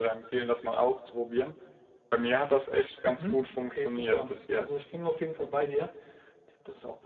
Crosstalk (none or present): present